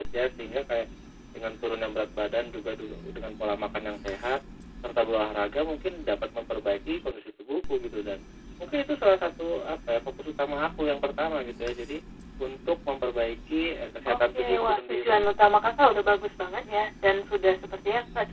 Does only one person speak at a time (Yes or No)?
No